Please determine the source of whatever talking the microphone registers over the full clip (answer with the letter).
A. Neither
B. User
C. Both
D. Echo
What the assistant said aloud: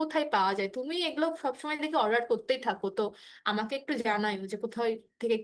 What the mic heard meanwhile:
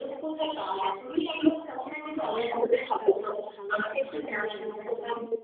C